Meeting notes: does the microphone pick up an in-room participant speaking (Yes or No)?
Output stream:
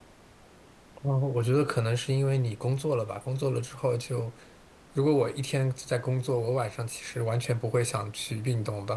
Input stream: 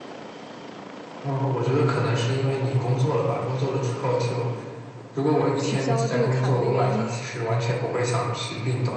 Yes